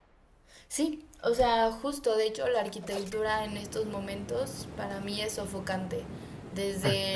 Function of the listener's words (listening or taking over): listening